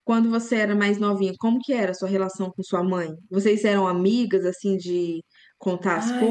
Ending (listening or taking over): taking over